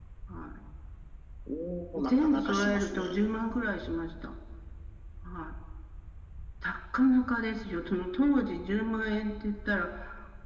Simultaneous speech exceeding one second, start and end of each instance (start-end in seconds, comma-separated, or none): 2.0-3.2